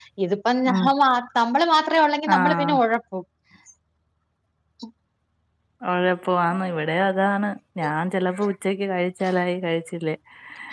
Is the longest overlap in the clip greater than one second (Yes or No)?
No